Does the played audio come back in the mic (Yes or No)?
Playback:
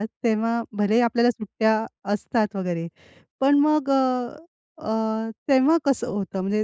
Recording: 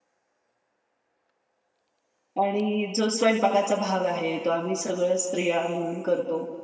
No